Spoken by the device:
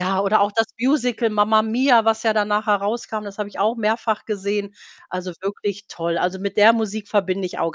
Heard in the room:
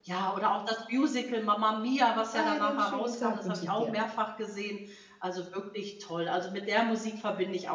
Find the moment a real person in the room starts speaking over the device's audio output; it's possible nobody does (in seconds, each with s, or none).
2.3 s